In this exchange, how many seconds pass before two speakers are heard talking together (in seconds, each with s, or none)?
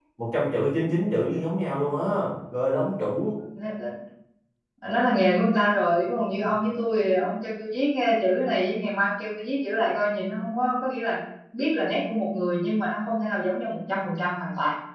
none